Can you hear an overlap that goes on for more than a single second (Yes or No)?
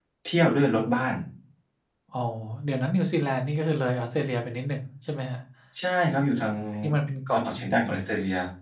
No